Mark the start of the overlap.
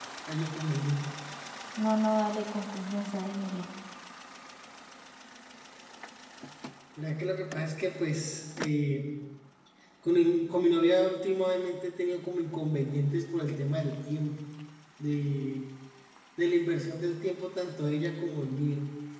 none

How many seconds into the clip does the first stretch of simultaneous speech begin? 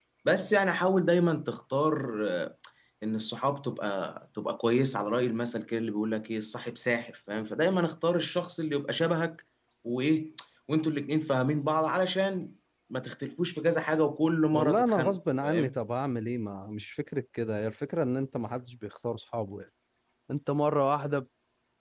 14.5 s

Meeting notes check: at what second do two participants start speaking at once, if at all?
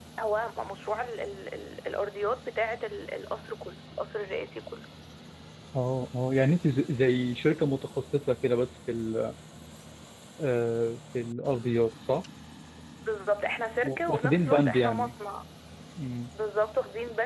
13.8 s

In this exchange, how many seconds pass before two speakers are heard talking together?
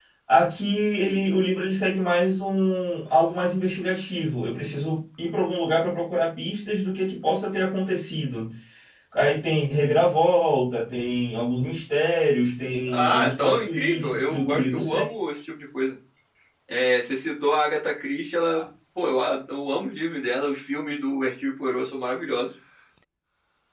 12.9 s

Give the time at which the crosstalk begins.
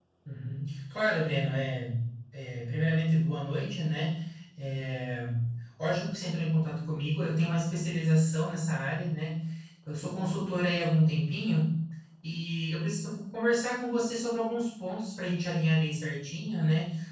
none

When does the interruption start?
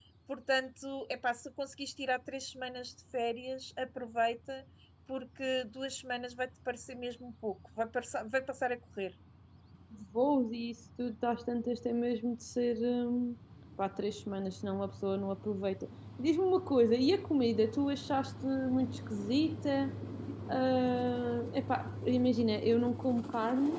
none

